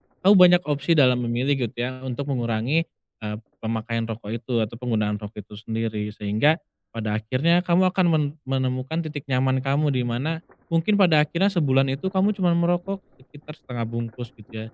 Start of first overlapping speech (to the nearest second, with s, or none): none